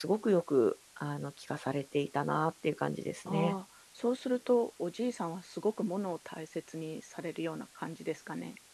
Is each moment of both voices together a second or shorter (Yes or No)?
Yes